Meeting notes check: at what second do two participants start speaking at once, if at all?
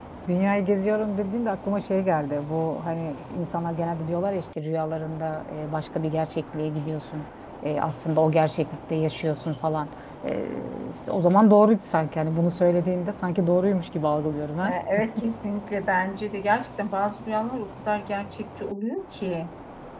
none

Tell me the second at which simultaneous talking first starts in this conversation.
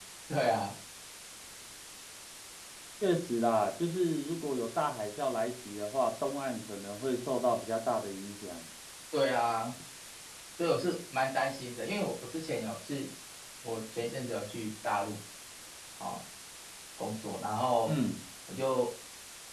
none

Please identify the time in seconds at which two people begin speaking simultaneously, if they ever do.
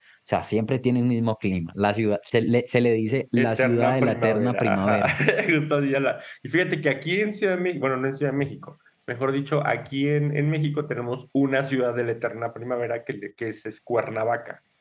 3.4 s

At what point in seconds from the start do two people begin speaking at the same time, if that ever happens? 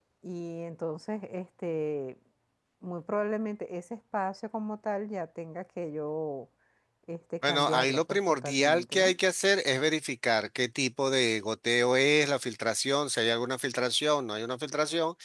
7.5 s

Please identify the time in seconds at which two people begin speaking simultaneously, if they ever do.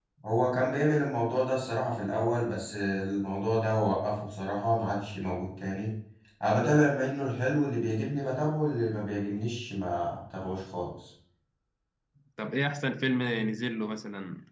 none

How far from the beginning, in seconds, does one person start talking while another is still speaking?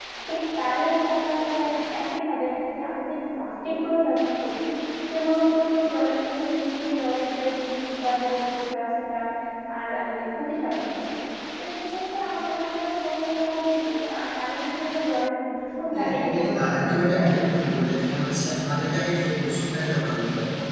15.9 s

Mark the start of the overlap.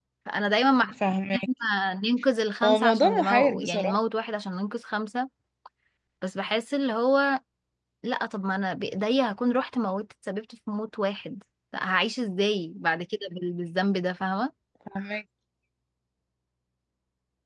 2.6 s

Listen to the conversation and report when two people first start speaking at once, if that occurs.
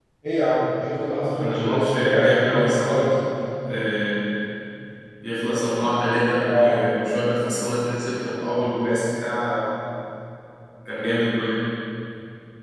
1.4 s

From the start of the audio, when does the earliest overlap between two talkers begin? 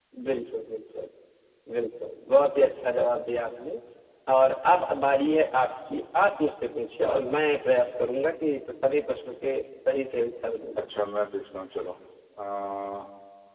none

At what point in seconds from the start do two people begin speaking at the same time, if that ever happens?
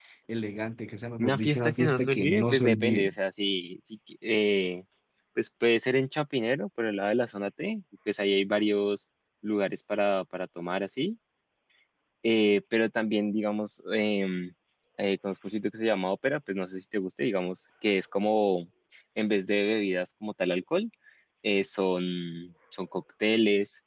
1.2 s

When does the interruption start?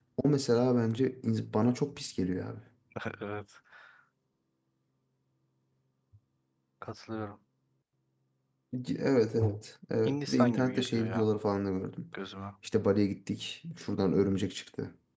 10.0 s

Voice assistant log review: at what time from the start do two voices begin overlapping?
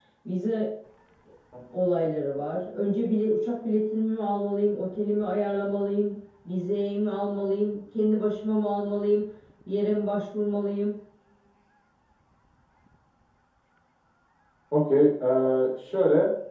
none

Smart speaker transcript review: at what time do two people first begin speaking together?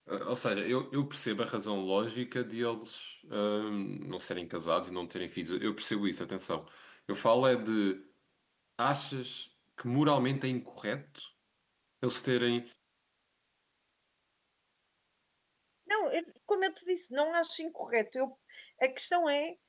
none

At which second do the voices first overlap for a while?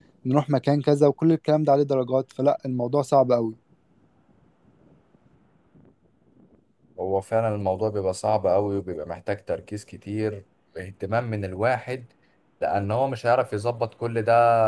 none

